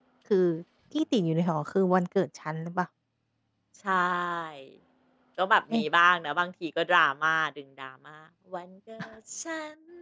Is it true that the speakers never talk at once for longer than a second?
Yes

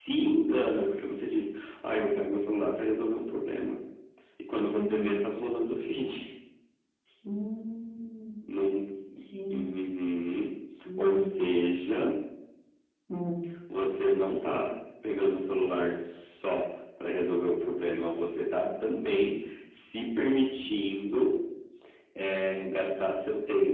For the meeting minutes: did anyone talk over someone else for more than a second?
No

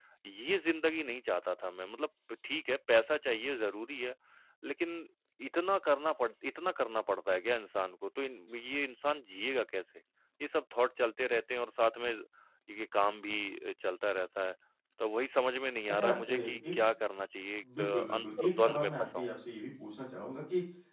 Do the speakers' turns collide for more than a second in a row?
Yes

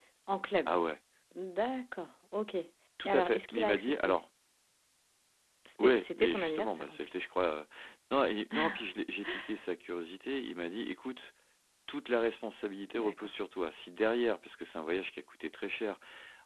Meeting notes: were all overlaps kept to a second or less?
No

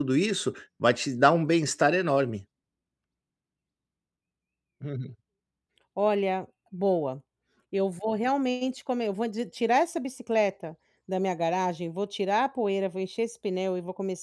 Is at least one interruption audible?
No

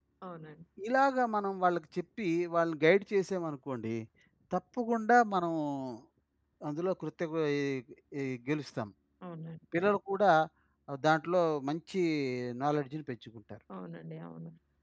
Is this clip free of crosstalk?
Yes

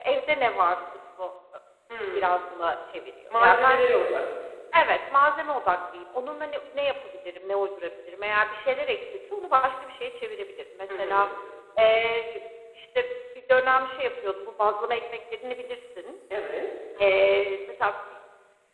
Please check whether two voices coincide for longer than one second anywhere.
No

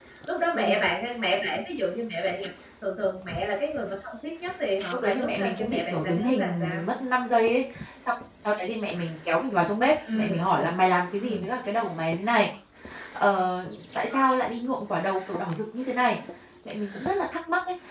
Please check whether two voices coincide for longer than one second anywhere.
Yes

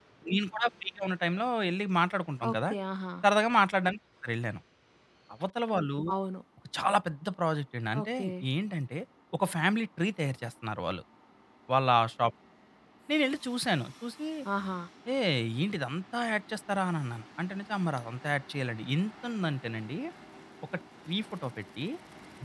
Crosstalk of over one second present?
No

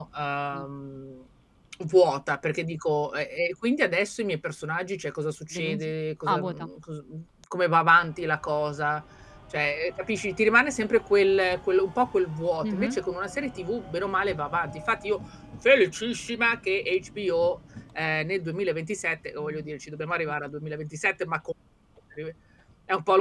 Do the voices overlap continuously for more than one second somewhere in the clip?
No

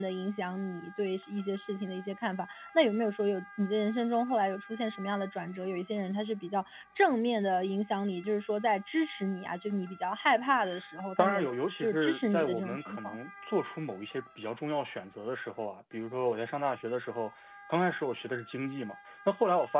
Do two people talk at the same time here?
Yes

